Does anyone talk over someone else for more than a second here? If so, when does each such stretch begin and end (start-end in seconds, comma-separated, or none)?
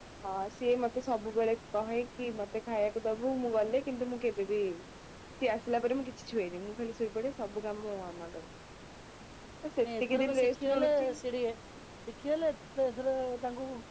9.8-11.1